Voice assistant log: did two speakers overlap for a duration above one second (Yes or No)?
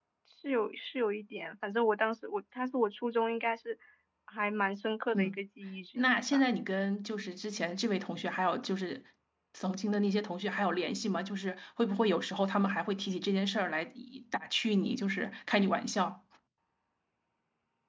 No